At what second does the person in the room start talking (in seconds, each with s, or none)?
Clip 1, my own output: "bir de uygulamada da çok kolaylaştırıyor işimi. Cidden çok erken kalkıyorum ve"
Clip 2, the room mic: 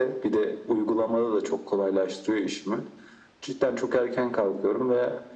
none